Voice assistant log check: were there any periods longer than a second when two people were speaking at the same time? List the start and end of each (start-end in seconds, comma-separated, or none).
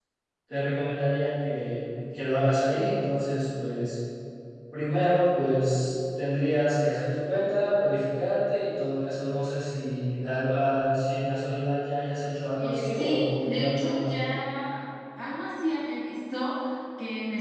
12.6-14.1